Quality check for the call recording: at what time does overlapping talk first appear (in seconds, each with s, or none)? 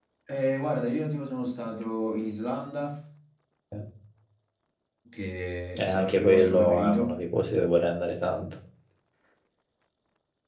5.8 s